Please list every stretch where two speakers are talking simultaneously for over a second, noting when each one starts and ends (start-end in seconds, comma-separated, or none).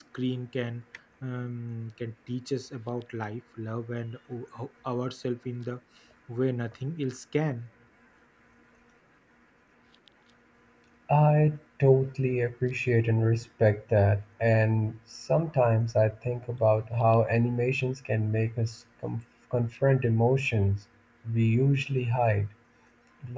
none